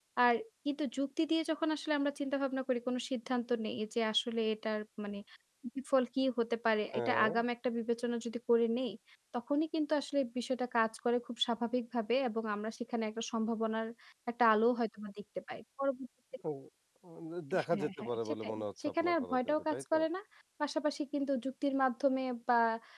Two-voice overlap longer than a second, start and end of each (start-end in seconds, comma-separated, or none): 17.7-20.0